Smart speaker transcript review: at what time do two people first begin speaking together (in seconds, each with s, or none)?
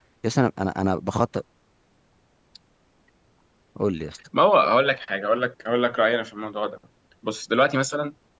none